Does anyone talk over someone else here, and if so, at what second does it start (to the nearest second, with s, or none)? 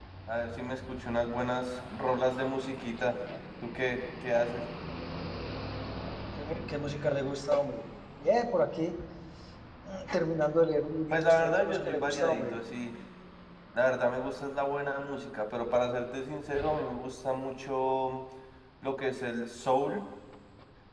11 s